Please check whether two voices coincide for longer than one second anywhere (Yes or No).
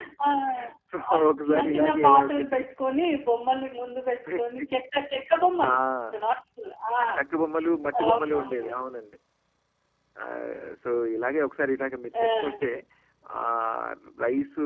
Yes